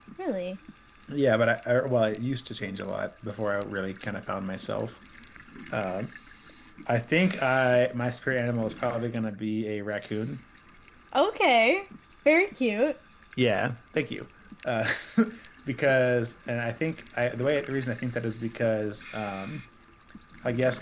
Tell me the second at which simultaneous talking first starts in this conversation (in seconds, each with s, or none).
none